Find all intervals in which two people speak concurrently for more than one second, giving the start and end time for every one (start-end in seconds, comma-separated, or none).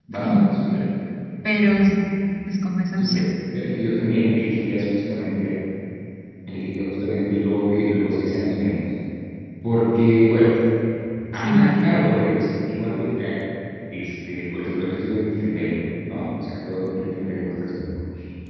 none